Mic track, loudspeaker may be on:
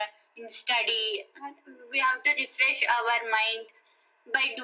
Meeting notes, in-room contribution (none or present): none